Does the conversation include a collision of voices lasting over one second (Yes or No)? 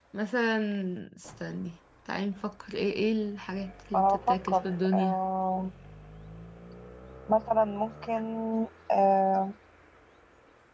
Yes